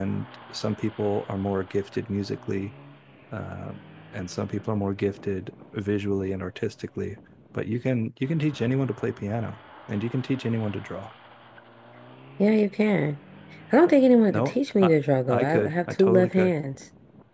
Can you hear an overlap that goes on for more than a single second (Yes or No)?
Yes